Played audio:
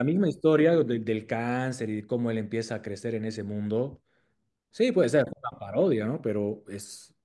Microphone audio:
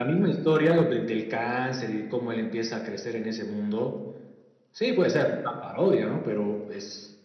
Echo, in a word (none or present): present